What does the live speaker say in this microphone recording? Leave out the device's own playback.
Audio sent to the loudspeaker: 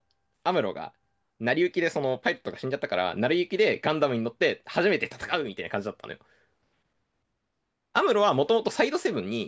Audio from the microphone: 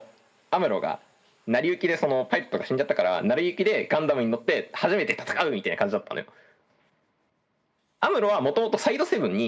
none

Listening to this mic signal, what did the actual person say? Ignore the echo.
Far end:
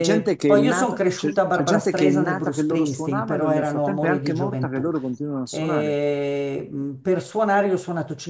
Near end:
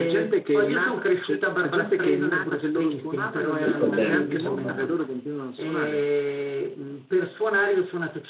Questo è bello, insomma.

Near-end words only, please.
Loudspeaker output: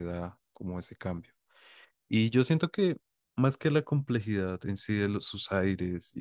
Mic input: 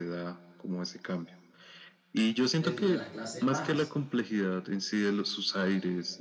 dentro de las clases bajas.

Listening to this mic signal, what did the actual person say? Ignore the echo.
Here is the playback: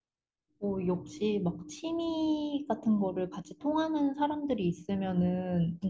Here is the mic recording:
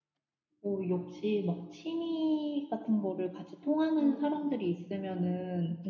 응 응.

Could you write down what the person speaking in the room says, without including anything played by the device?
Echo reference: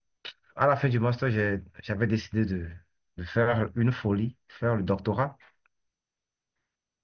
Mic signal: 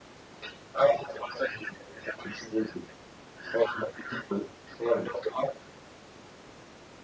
none

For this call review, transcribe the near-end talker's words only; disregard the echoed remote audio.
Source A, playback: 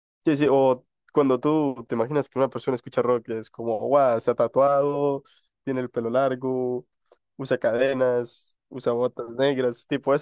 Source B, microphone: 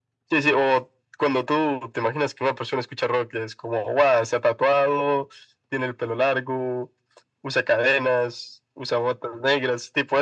none

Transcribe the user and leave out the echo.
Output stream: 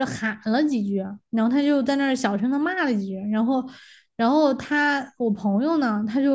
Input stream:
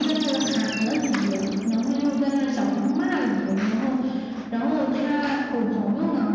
none

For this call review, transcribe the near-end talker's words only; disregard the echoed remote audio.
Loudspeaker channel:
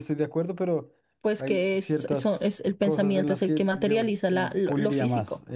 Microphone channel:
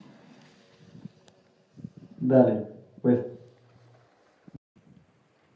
Dale, pues,

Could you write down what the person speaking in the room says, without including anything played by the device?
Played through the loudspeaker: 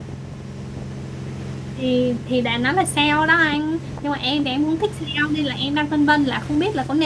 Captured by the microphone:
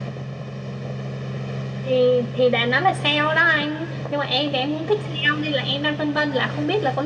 none

